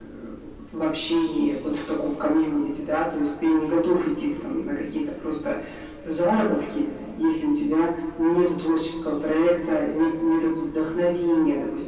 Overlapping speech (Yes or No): No